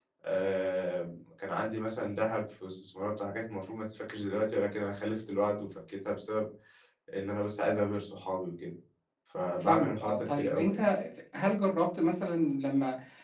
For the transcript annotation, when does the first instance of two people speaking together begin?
10 s

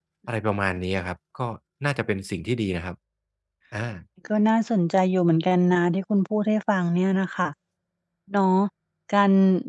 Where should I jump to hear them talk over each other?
none

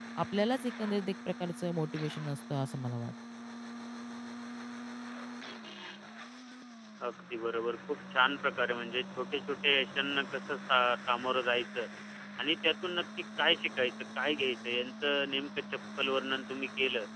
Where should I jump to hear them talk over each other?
none

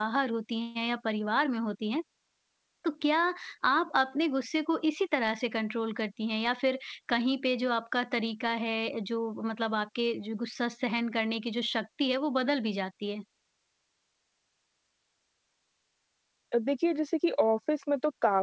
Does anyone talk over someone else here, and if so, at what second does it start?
none

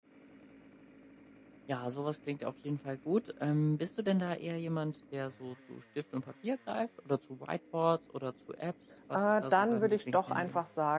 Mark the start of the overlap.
9 s

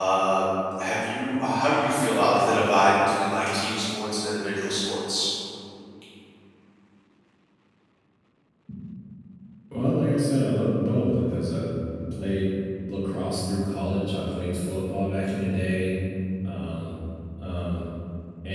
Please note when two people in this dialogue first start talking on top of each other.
none

